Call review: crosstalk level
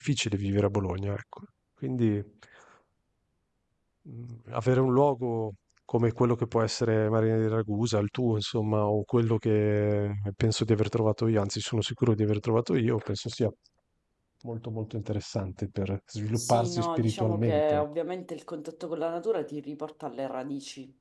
present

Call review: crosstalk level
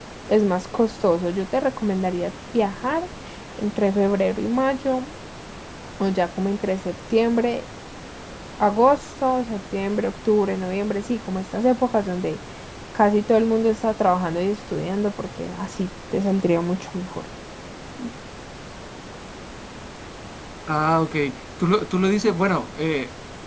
none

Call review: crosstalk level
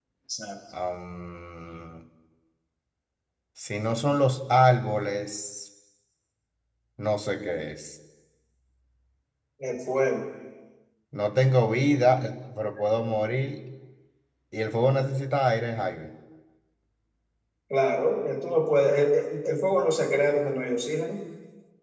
none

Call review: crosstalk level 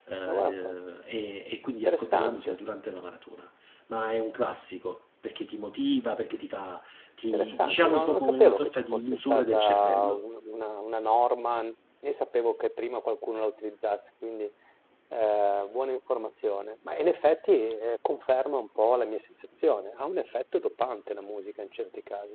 present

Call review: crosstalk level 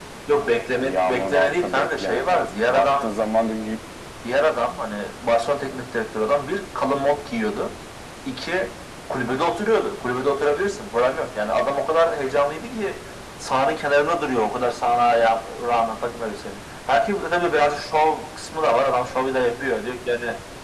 present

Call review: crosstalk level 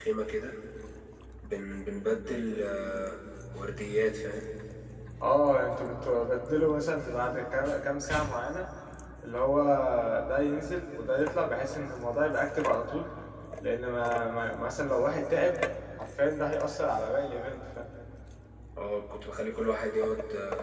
none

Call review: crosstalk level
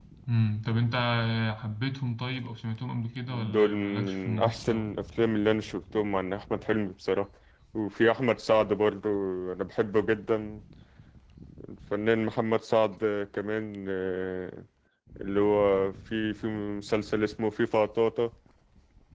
present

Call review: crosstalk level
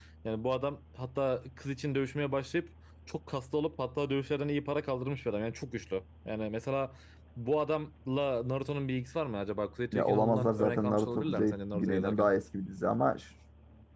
present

